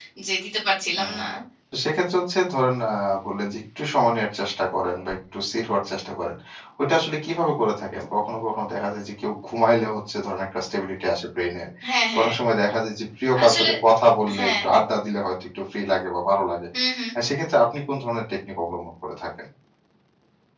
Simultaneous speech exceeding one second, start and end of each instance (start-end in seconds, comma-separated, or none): none